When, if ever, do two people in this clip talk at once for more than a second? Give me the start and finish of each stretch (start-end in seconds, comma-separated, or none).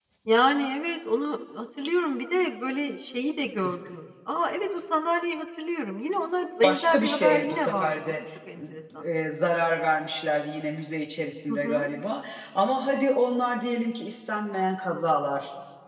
6.6-8.2